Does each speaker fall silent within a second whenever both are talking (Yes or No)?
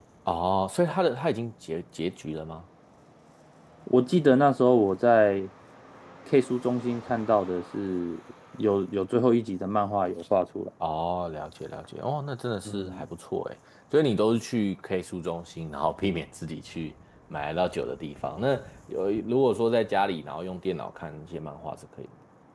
Yes